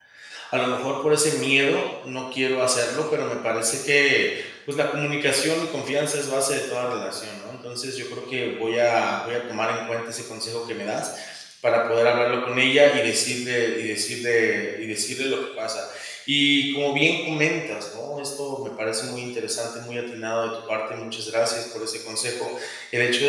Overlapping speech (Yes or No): No